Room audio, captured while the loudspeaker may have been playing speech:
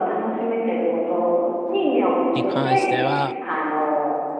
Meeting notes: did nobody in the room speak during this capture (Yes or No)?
No